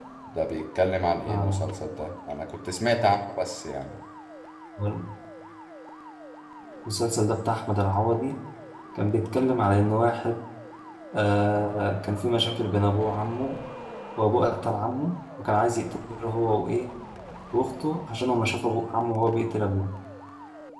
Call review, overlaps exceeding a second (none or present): none